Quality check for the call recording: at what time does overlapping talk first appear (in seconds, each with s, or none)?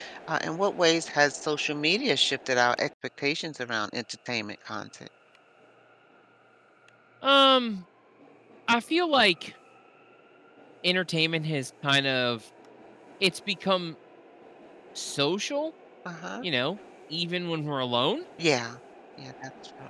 none